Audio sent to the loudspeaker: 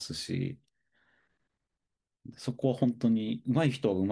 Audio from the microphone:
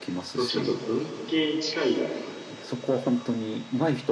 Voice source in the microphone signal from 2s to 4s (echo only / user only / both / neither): both